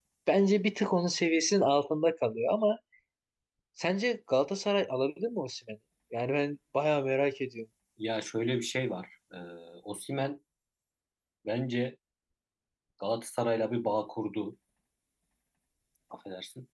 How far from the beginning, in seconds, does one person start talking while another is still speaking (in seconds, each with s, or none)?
none